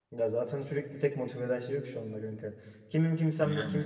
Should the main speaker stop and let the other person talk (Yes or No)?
No